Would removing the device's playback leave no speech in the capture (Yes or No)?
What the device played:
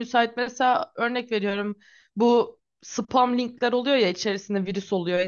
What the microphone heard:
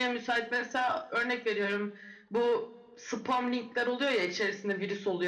Yes